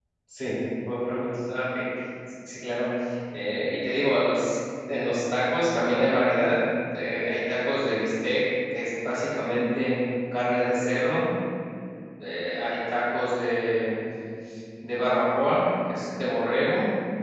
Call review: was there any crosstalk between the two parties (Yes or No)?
No